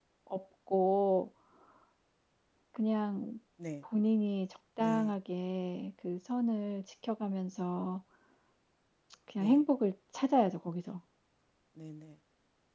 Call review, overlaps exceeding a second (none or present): none